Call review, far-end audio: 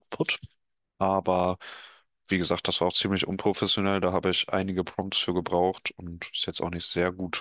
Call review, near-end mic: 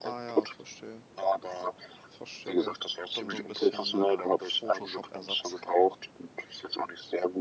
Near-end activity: present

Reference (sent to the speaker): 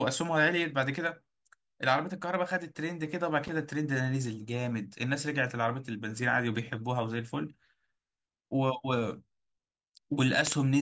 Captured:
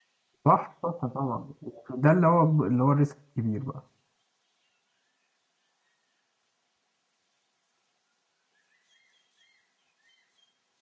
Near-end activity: present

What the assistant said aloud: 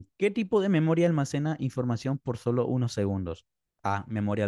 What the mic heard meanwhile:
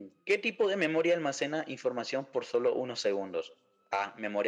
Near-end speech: none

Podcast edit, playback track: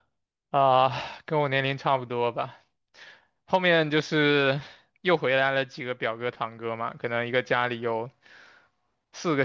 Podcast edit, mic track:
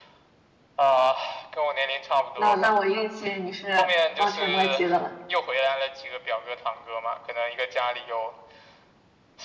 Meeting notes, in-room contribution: present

